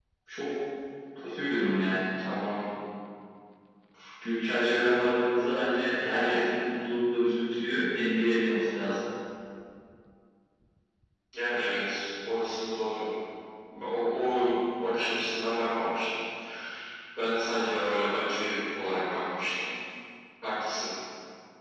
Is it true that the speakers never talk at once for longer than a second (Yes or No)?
Yes